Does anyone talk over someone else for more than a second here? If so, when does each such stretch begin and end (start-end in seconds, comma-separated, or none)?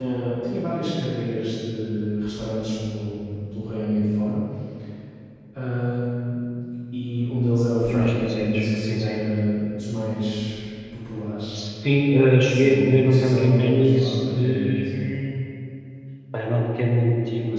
7.9-9.2, 12.5-14.9